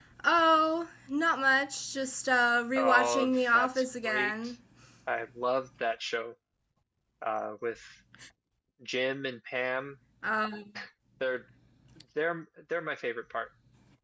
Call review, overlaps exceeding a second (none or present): present